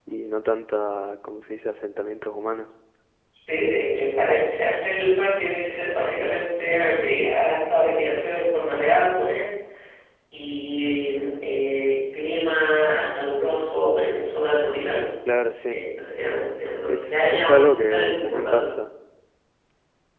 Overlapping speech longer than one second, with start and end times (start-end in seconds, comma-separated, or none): 16.9-18.7